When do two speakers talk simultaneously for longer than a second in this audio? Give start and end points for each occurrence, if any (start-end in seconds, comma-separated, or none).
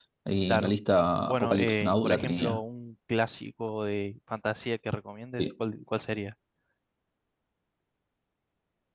1.3-2.6